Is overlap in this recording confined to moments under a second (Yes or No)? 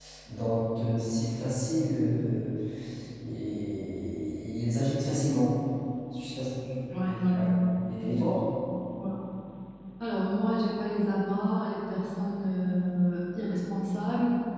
Yes